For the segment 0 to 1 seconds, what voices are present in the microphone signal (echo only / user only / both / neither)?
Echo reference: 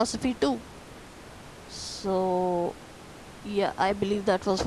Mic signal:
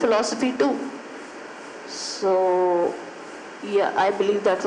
echo only